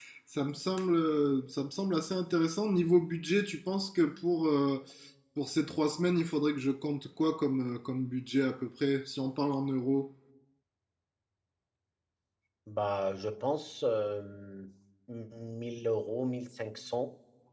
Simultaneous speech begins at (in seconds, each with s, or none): none